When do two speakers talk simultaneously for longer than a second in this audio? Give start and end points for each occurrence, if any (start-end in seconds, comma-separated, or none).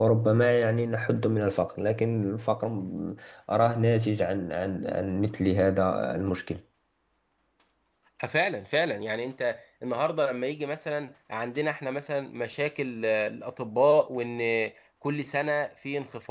none